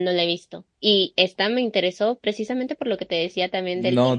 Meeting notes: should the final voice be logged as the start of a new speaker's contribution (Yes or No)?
Yes